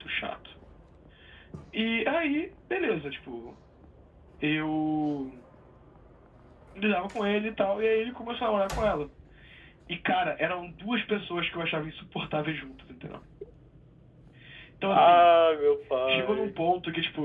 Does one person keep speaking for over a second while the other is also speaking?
No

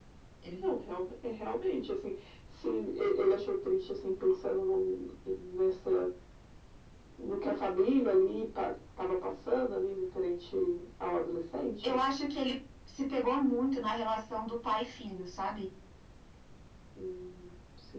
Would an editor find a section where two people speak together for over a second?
No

